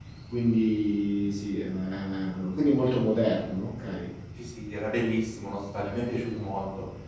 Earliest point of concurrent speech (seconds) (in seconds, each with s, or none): none